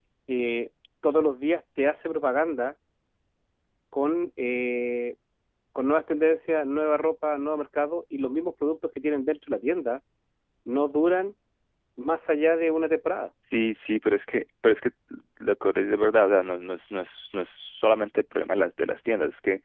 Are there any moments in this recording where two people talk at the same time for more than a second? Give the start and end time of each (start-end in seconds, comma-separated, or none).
none